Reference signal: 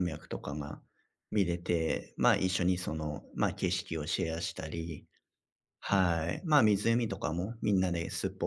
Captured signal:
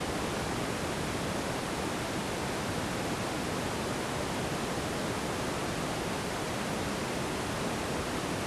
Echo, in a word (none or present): none